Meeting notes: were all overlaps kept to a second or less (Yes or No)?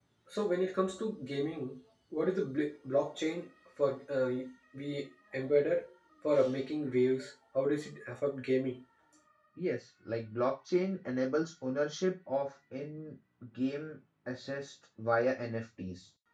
Yes